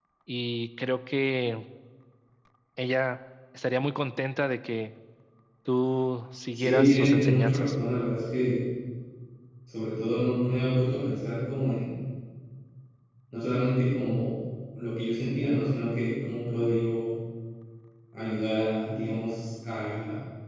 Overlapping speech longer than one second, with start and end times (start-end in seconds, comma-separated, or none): 6.5-7.7